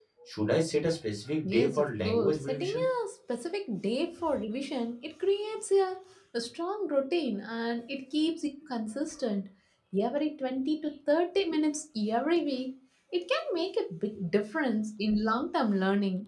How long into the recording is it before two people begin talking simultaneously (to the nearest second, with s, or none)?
1 s